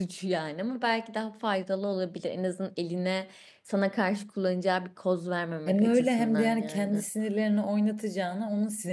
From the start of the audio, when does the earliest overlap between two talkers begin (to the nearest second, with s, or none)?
6 s